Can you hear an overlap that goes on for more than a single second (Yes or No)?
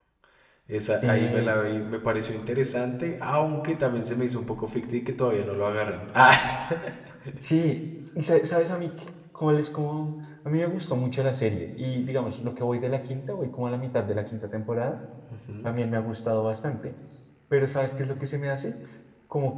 No